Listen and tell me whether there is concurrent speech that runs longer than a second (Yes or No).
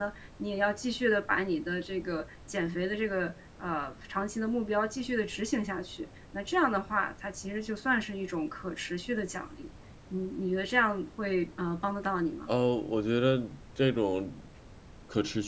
No